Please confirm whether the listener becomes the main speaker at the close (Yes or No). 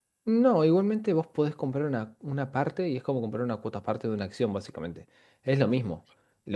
No